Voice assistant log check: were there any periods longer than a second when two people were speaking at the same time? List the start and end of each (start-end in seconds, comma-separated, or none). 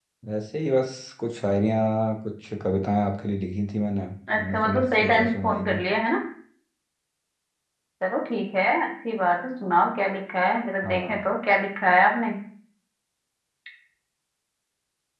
4.3-5.8